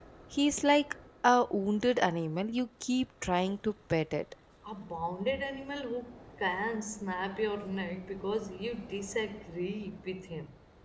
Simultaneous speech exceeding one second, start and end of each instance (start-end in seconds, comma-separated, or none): none